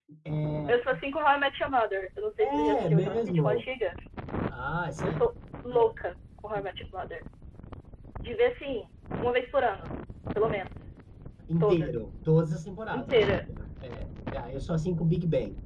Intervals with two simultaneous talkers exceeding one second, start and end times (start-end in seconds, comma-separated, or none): 2.4-3.7